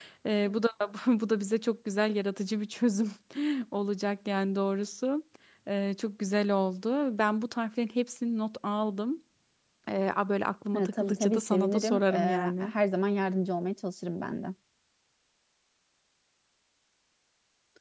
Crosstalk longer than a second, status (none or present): present